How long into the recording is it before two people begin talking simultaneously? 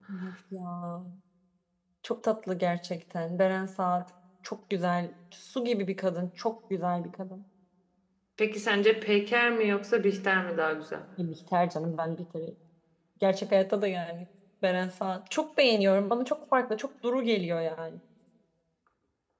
none

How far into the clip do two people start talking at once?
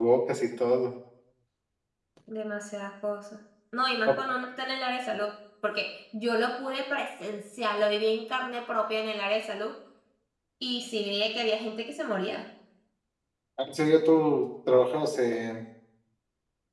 none

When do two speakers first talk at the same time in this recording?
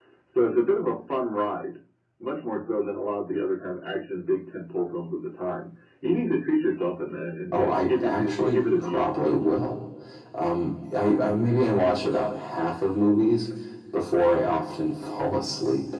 7.5 s

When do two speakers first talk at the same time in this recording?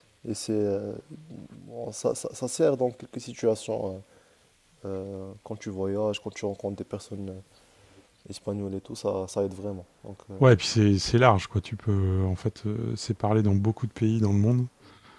none

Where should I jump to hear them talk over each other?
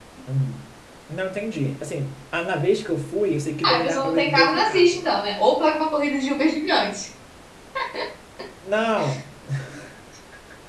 3.6 s

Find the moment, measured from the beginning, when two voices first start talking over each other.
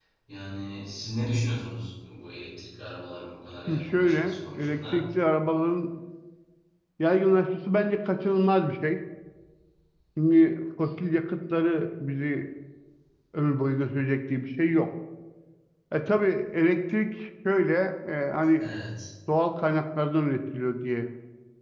3.7 s

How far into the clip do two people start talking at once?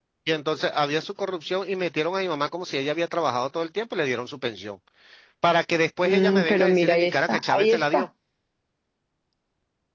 6.0 s

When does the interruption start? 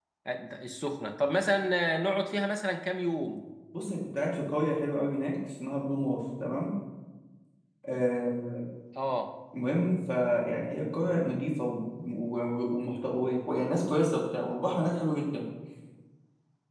none

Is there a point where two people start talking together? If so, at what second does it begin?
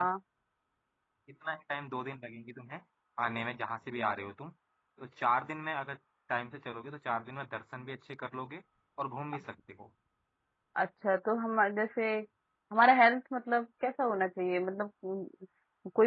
none

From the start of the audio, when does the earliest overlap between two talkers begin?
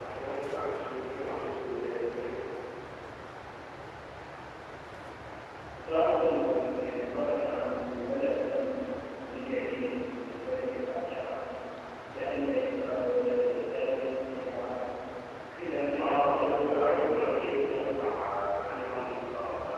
16.0 s

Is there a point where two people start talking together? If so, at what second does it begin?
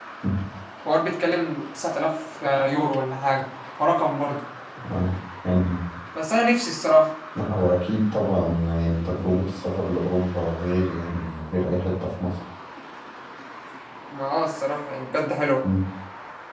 none

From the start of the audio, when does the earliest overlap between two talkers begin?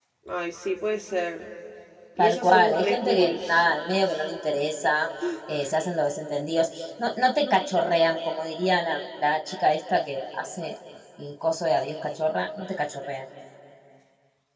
2.2 s

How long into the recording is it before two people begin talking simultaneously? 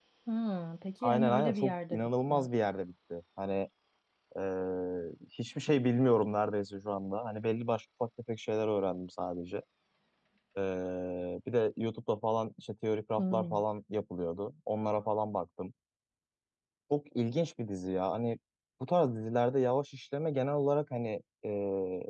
1.0 s

